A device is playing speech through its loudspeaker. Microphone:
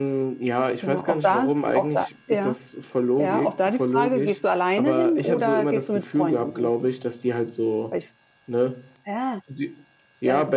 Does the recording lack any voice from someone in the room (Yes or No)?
No